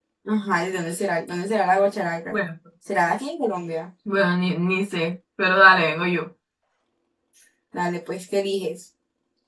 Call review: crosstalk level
none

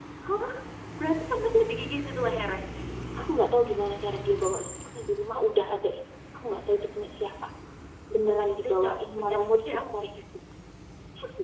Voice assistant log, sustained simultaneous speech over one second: present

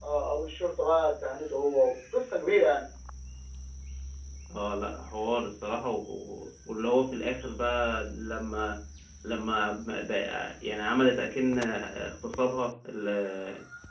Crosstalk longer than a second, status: none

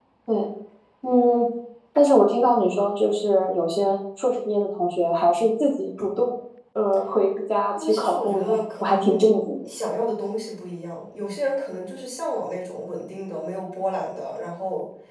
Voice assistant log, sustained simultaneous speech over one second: present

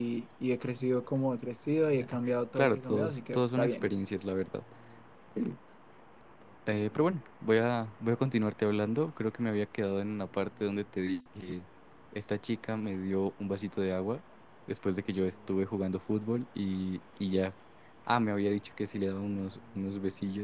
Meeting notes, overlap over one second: present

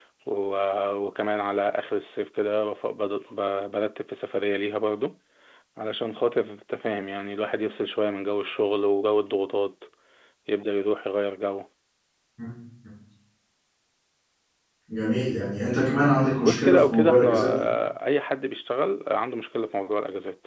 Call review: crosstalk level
present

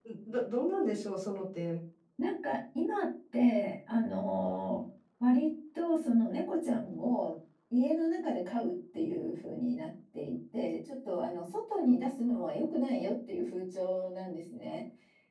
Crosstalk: none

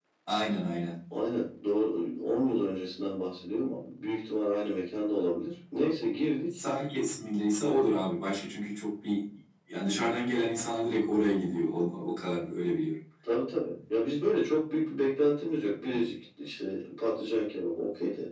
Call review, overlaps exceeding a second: none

